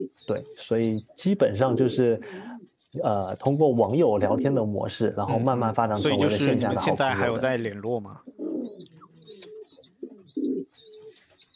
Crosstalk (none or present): present